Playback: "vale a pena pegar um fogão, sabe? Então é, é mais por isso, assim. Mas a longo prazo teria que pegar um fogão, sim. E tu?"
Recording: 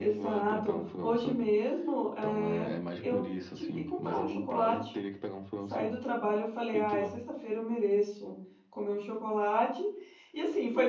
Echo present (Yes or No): Yes